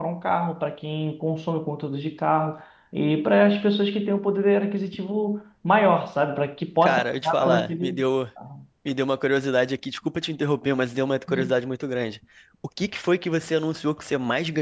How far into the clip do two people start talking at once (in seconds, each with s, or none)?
6.8 s